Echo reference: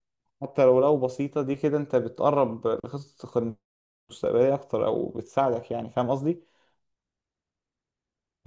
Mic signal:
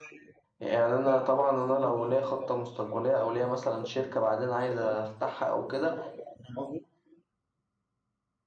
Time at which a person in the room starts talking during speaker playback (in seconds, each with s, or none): 0.6 s